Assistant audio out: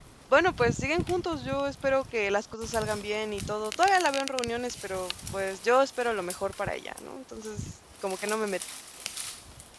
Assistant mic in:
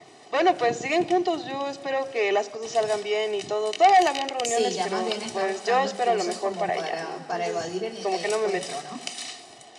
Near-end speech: present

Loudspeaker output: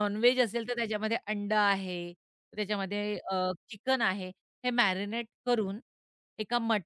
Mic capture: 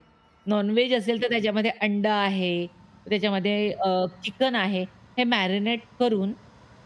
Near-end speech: none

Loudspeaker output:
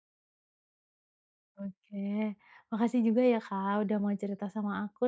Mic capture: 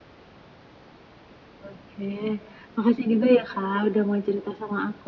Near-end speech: none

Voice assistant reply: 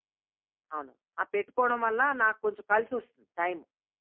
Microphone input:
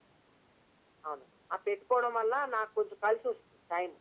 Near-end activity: none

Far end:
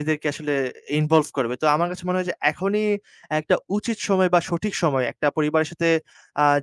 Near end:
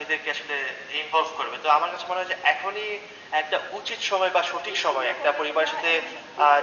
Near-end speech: present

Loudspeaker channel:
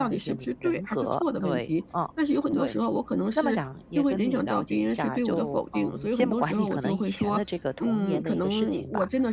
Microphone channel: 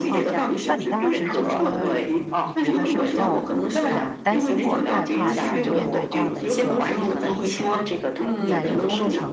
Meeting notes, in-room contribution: present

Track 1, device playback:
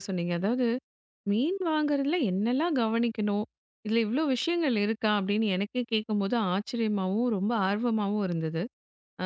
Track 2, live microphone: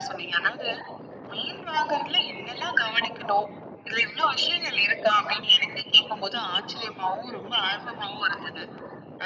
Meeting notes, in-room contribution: none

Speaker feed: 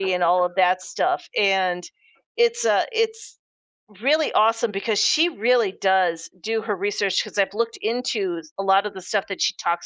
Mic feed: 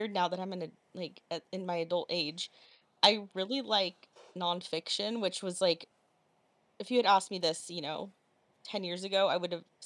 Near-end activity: present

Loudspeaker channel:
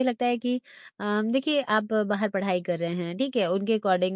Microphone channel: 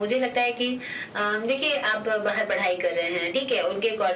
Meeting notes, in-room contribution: none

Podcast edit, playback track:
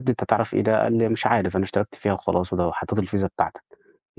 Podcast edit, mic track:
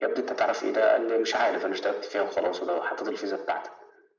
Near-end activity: none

